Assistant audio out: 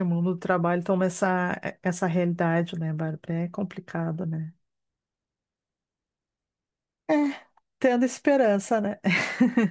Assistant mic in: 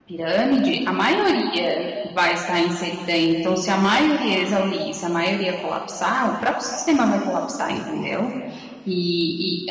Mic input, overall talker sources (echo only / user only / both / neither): user only